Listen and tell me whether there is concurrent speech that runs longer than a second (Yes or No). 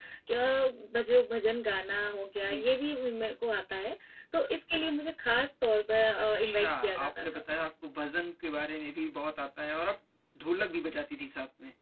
Yes